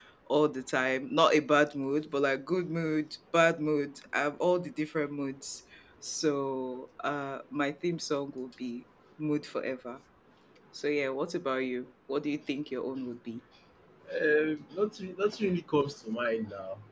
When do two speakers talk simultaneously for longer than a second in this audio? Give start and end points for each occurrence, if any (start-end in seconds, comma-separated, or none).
none